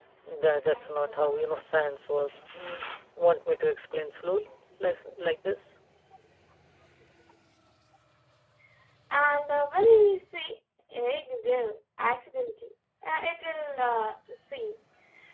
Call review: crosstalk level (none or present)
none